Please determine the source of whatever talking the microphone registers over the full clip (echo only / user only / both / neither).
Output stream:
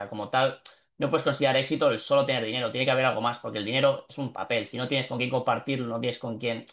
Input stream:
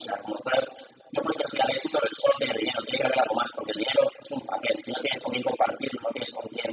echo only